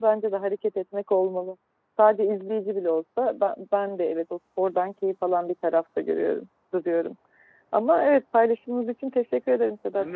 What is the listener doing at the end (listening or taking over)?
taking over